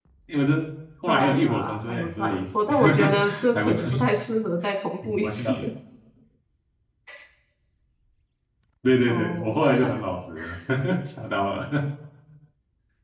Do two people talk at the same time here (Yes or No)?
Yes